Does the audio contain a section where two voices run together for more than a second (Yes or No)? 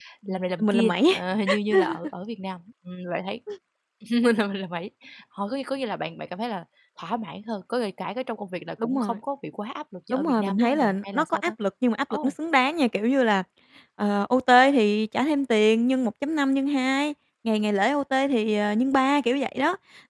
Yes